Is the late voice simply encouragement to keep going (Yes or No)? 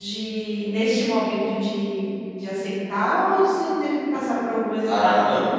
No